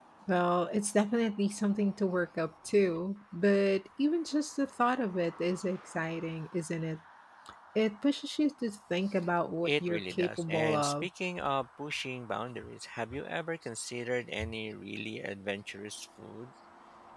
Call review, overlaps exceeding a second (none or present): present